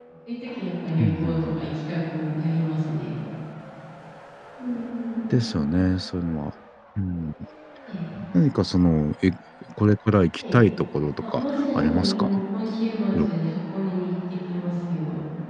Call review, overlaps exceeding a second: present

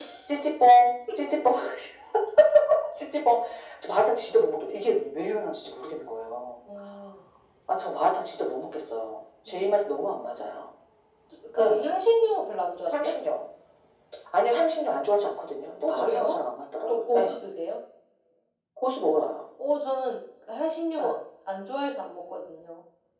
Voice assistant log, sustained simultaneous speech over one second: none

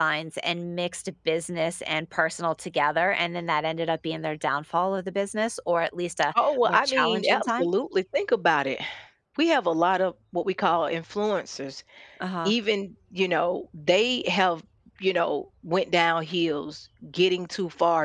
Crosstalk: present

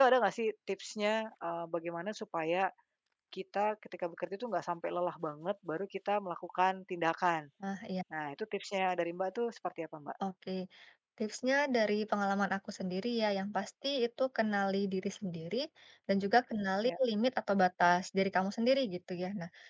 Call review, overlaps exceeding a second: none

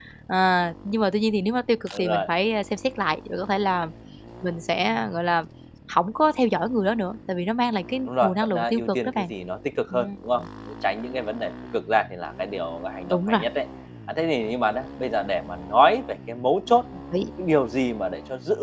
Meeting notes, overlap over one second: present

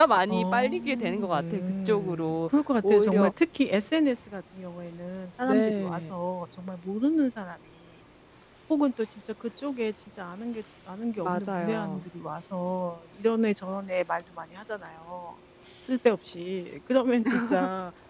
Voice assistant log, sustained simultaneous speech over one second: present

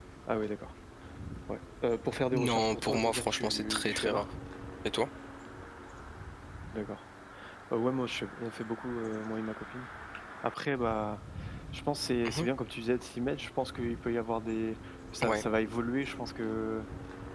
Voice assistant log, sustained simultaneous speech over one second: present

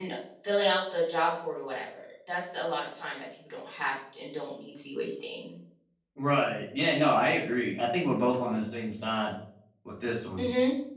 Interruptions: none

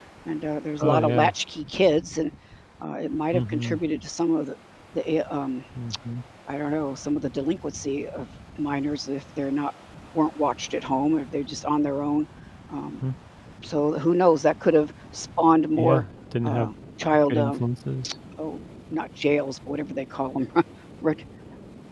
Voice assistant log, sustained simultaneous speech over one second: none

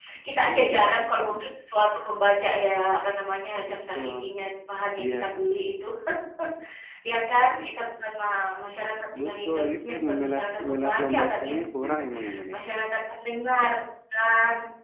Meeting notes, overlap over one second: present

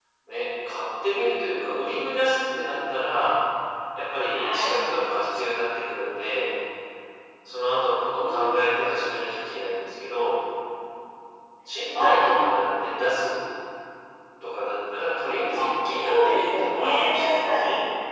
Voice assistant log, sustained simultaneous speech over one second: present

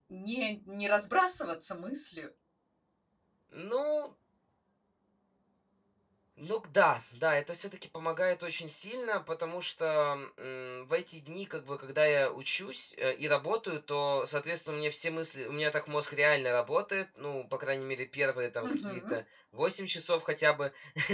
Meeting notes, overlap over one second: none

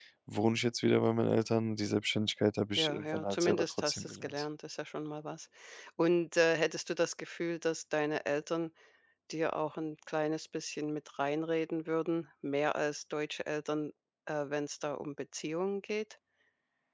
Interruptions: present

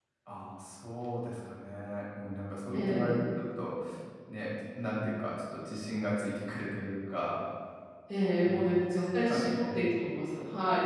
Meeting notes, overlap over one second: present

